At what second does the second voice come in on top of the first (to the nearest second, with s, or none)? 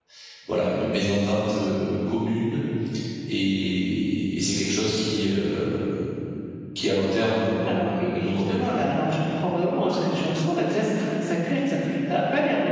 8 s